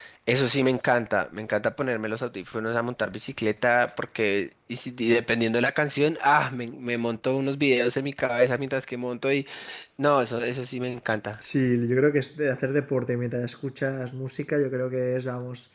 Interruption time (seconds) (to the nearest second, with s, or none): none